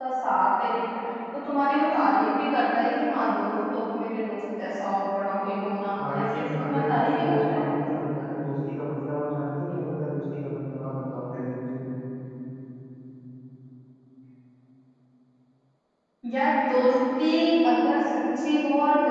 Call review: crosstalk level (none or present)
present